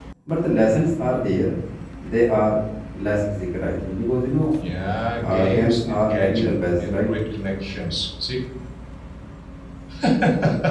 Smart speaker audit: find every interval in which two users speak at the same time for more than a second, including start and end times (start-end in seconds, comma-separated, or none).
5.2-7.1